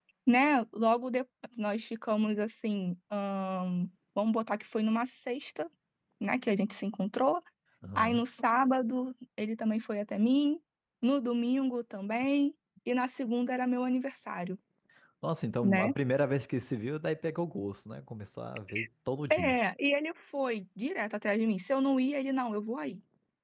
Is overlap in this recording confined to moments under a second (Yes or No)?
Yes